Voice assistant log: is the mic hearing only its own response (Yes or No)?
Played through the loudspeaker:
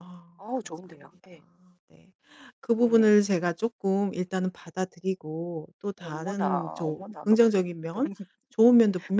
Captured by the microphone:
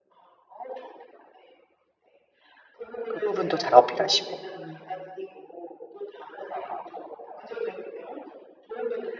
No